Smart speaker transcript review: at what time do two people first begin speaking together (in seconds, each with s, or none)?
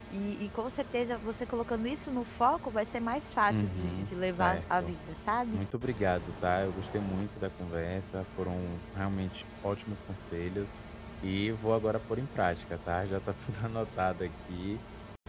3.5 s